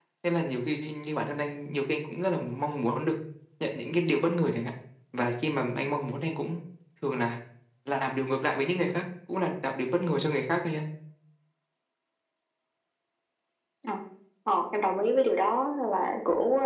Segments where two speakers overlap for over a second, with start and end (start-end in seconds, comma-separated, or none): none